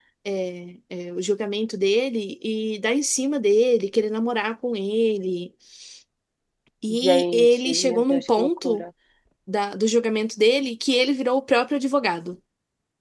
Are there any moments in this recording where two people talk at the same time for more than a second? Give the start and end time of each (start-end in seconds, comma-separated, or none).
7.0-8.8